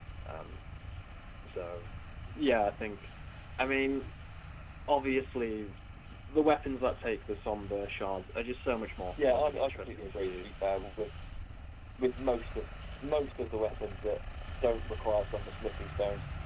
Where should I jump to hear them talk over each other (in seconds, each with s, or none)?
9.2 s